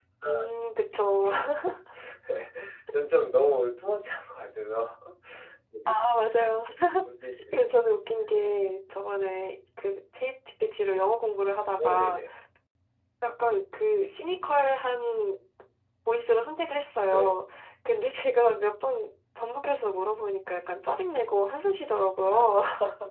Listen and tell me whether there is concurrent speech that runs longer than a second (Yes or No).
No